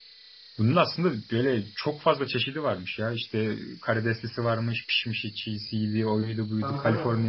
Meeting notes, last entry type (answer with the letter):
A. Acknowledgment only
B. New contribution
A